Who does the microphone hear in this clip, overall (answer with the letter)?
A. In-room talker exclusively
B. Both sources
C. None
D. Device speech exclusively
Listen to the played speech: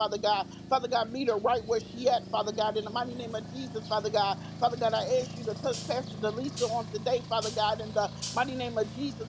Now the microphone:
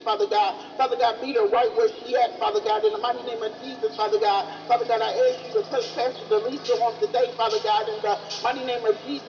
D